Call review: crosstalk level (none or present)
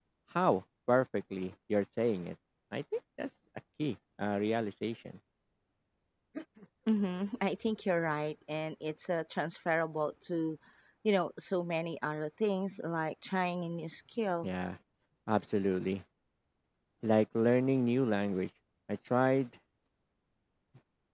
none